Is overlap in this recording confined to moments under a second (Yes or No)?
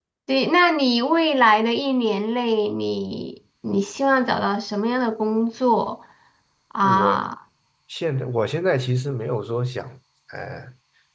Yes